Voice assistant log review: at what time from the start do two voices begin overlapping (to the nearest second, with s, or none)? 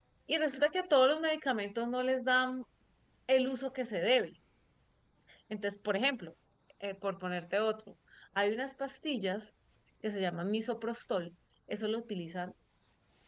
none